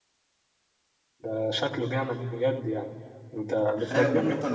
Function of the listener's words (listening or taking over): taking over